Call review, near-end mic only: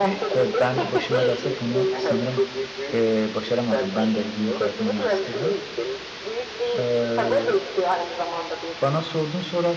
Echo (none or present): present